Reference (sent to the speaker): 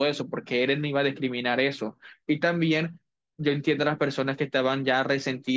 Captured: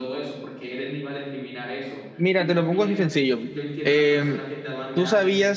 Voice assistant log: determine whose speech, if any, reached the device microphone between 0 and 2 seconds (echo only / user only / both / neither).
echo only